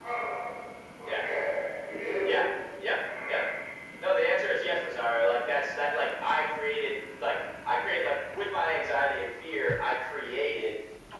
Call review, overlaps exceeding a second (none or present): none